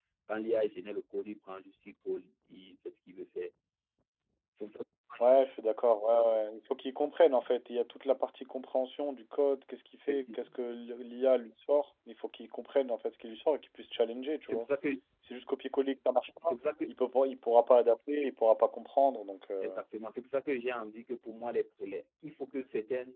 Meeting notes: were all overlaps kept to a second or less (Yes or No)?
Yes